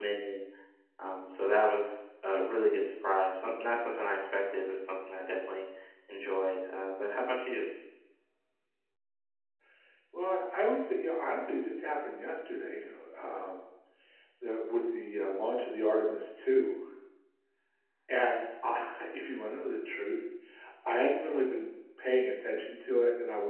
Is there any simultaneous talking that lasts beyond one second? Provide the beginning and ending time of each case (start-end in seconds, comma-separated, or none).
none